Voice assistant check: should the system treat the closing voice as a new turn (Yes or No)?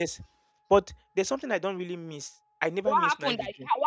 Yes